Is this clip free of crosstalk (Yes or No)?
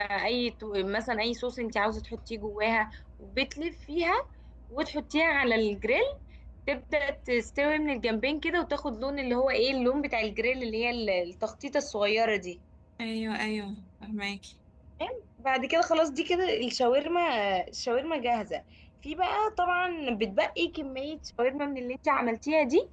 Yes